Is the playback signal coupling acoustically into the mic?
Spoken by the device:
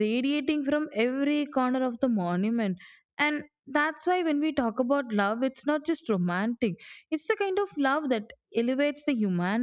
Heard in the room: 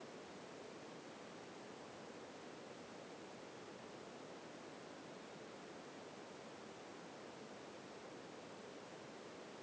No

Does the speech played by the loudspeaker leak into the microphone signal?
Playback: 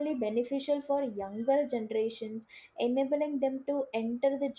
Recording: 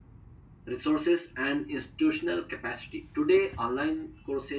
No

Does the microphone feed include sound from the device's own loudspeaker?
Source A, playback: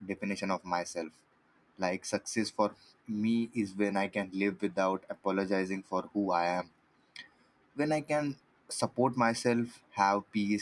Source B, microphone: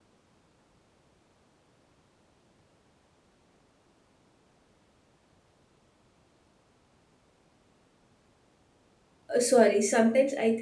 No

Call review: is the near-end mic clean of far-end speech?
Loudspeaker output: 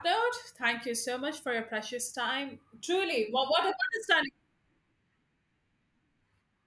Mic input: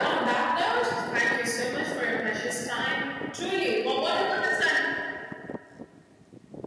No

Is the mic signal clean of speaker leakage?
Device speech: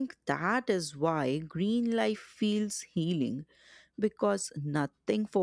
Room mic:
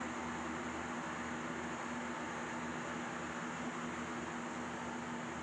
Yes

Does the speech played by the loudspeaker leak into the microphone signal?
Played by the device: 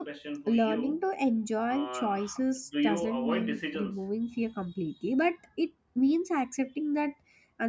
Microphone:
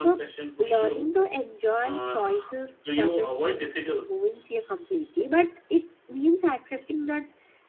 Yes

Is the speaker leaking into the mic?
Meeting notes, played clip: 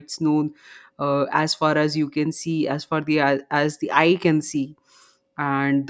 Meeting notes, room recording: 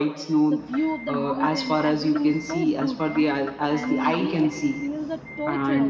Yes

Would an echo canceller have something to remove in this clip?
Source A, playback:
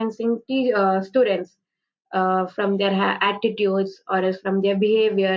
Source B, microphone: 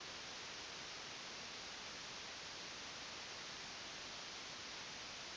No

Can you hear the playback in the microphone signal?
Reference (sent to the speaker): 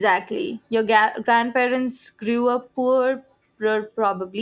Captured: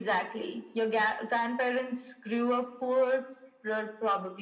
Yes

